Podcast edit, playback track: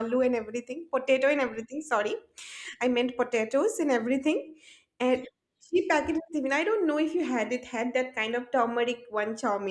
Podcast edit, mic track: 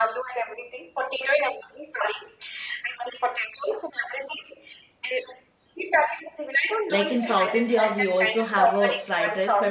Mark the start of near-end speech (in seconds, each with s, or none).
6.9 s